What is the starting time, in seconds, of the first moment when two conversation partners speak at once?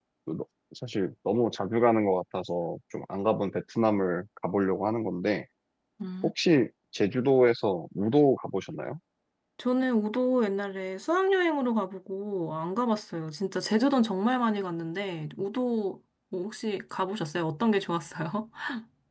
none

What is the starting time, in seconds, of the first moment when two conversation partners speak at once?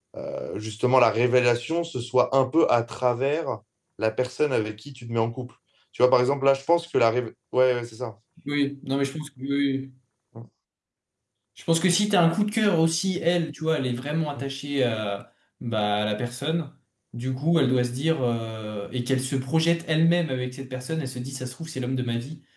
none

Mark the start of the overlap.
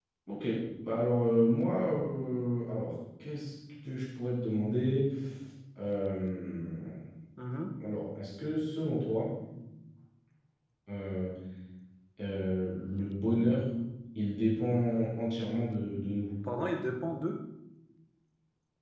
none

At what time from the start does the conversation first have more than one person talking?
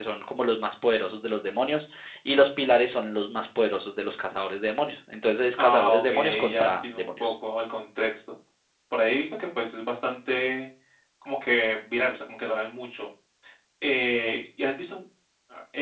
5.6 s

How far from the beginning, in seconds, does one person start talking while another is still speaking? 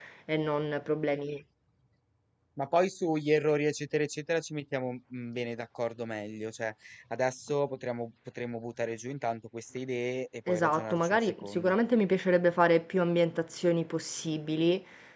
10.5 s

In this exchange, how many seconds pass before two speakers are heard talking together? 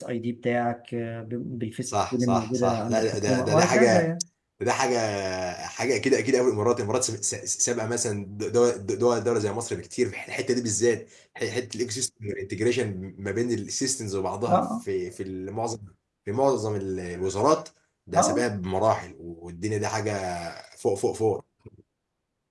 1.9 s

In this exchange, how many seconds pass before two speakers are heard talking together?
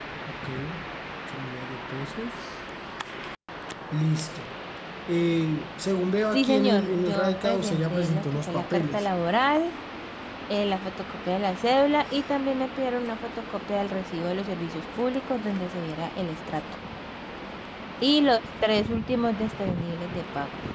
6.3 s

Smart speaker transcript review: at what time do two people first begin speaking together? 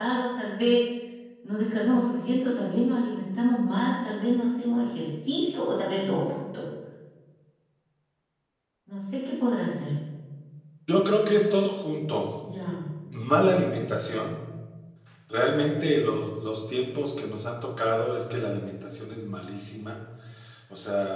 none

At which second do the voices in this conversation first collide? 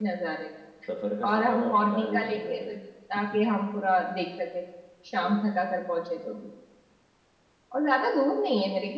1.3 s

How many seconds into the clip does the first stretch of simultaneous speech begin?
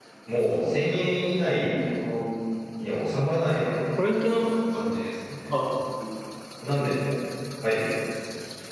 none

